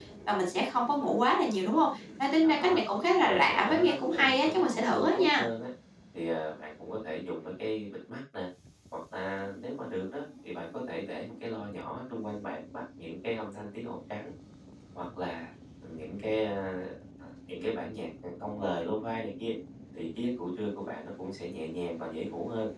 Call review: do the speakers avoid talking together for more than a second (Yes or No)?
No